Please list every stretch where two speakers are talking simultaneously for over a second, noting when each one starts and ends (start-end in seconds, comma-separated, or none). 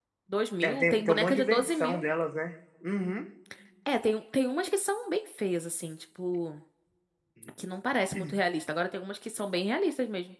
0.6-2.0